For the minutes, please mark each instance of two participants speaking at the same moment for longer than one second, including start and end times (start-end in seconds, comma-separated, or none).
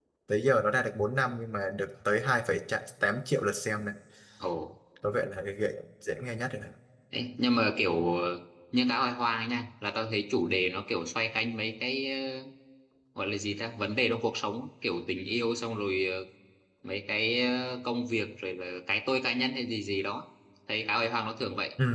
none